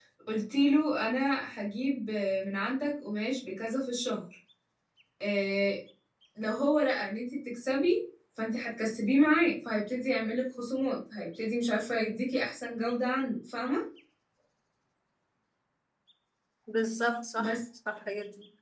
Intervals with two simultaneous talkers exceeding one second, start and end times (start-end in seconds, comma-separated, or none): none